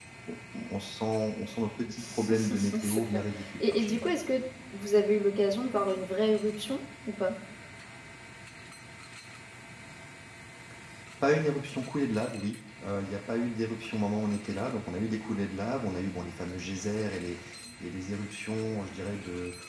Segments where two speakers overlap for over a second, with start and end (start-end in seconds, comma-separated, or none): 2.0-4.0